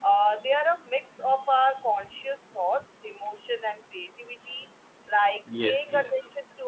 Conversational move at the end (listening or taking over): listening